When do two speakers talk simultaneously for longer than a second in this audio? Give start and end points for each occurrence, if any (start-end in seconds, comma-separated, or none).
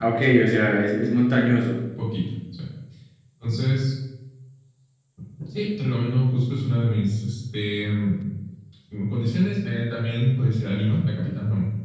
none